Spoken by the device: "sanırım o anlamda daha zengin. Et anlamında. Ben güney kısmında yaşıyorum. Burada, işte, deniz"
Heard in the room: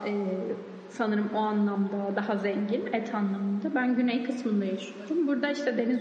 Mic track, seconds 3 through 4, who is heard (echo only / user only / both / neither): echo only